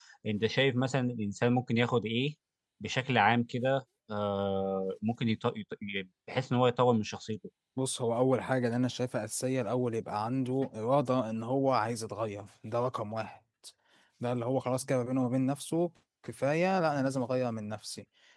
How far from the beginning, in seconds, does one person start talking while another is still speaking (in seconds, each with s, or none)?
none